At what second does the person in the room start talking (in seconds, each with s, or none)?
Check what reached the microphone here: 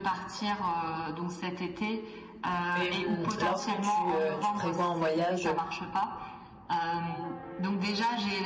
2.8 s